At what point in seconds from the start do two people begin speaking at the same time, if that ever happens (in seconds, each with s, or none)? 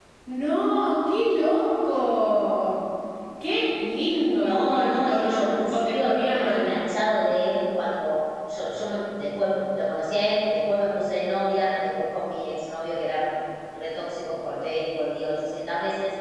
4.3 s